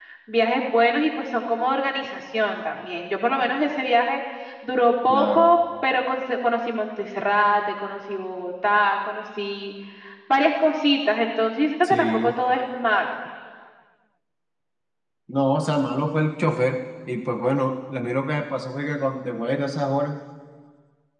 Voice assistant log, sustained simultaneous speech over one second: none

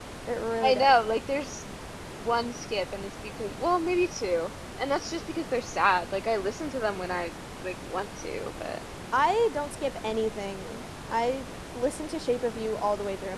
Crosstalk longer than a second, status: none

